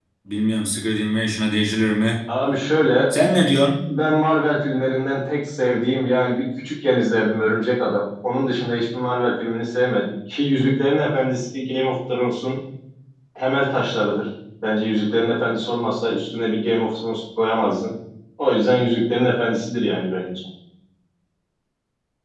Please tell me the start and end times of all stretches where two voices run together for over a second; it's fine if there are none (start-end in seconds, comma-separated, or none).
none